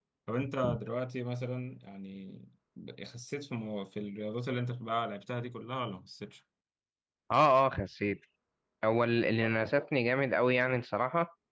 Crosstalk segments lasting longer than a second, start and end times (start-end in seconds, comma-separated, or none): none